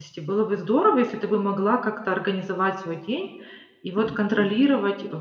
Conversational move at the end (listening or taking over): listening